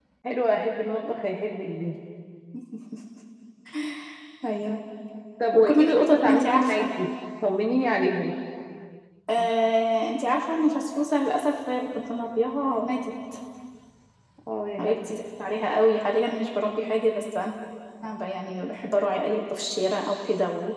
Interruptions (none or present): present